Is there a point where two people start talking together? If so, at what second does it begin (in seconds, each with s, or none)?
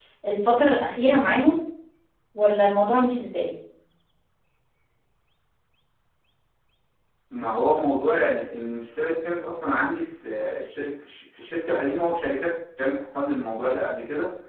none